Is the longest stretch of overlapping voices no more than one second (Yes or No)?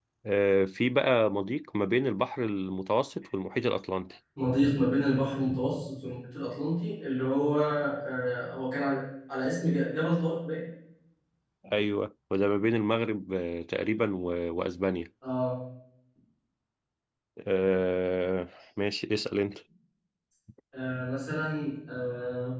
Yes